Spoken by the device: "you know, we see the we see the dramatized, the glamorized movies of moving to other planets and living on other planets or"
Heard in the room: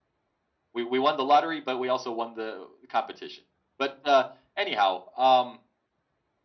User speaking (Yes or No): Yes